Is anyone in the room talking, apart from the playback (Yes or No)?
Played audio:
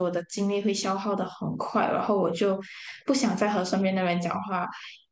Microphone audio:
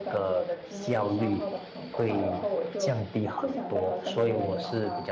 Yes